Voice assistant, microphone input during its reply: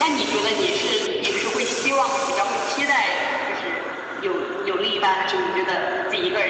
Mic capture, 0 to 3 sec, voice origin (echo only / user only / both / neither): echo only